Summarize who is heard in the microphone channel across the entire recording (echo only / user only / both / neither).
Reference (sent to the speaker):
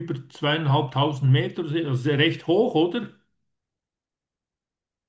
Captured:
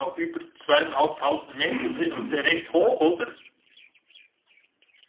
both